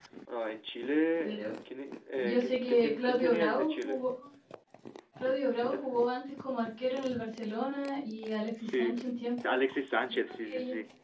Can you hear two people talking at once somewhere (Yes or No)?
Yes